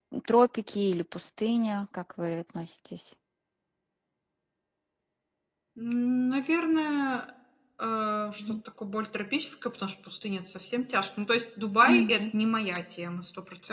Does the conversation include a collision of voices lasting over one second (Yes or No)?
No